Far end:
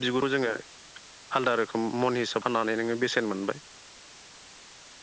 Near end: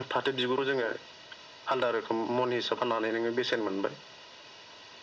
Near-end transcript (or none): none